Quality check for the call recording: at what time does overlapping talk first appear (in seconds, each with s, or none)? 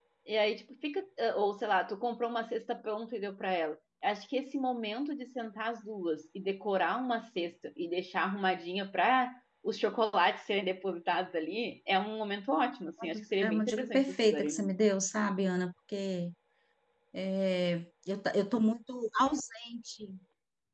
13.0 s